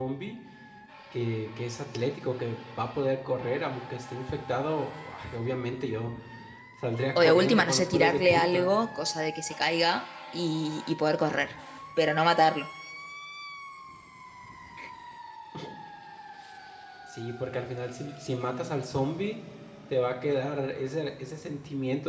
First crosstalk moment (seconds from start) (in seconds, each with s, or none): 7.2 s